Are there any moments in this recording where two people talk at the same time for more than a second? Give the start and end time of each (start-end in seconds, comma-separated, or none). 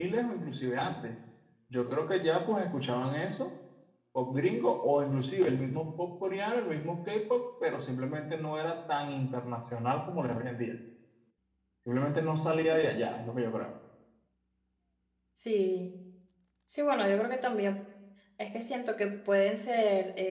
none